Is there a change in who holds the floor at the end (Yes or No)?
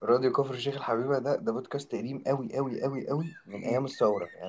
No